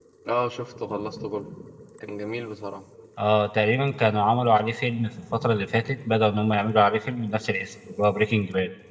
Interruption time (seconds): none

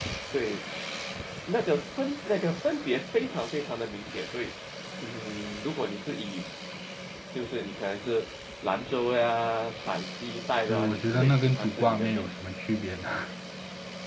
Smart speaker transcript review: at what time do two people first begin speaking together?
10.7 s

